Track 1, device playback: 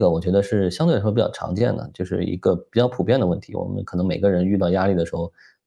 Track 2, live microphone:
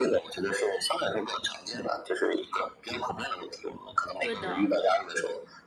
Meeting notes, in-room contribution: present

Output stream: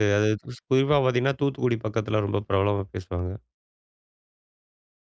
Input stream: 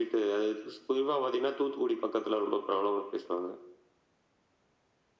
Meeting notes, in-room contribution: none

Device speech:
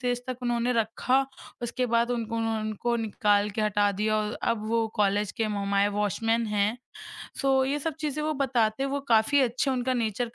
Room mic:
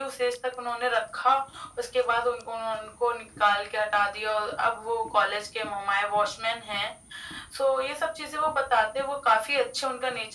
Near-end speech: none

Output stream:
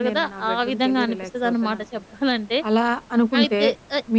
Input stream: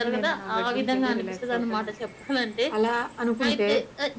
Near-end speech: none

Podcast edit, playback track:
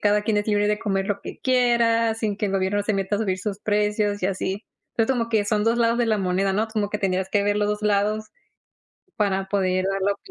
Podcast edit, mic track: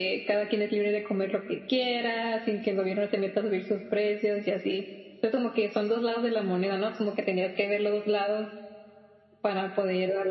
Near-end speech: none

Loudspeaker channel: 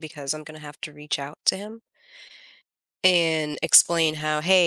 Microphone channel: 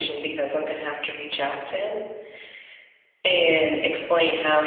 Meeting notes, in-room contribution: none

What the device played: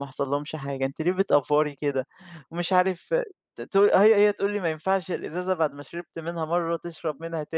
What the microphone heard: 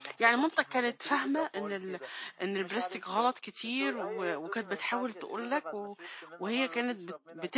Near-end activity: present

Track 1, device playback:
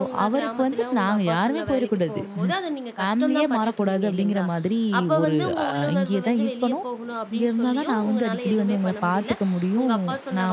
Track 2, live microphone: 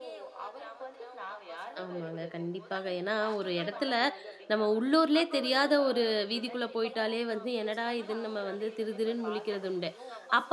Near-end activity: present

